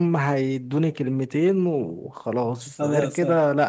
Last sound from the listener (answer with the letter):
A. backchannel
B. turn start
A